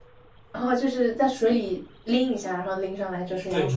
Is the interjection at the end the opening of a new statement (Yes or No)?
Yes